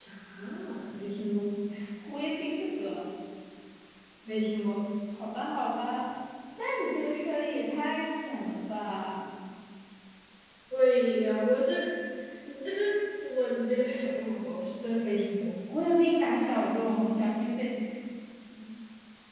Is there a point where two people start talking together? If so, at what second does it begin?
none

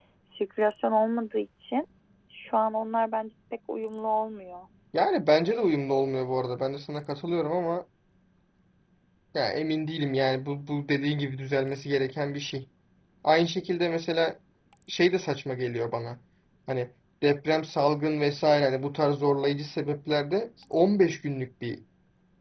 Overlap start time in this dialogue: none

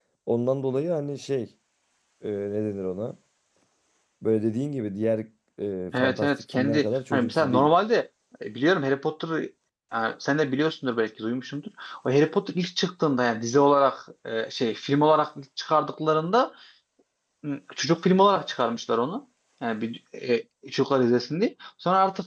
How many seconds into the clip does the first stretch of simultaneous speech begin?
6 s

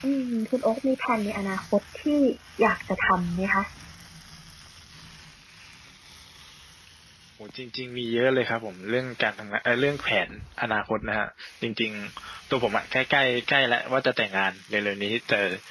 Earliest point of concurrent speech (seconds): none

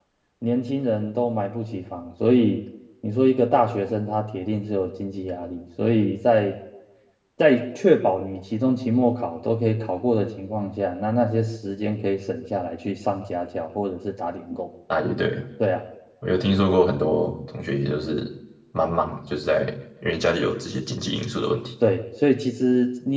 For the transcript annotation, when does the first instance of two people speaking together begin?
none

